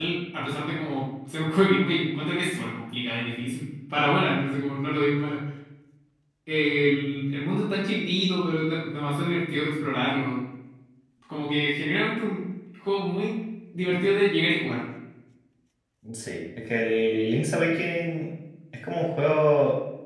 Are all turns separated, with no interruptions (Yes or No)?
Yes